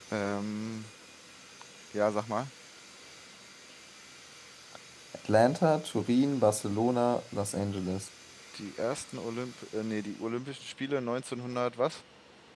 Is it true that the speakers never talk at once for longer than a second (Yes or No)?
Yes